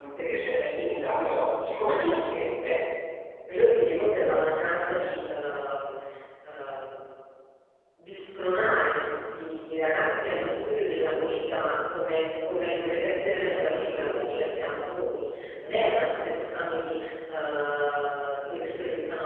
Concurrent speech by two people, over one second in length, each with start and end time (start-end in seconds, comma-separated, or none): none